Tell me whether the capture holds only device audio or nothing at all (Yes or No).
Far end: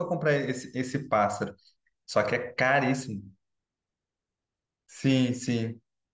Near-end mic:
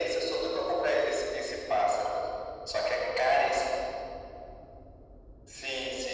Yes